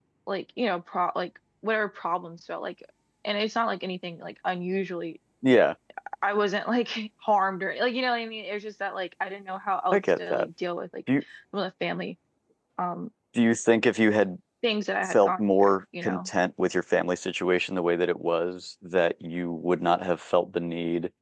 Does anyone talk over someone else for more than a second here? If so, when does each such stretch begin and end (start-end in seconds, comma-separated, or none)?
15.0-16.3